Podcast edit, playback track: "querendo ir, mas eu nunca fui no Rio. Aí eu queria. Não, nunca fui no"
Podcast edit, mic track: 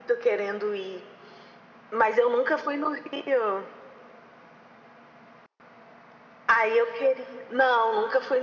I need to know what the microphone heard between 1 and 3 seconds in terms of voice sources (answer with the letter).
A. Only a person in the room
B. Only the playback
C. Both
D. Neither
B